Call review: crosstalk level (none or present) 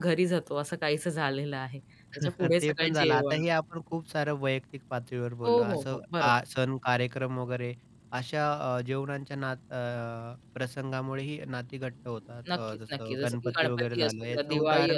present